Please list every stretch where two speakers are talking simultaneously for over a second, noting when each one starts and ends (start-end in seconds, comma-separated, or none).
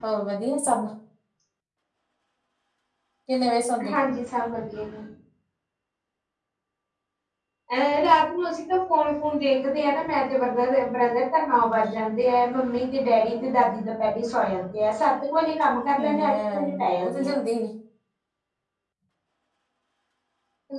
16.1-17.4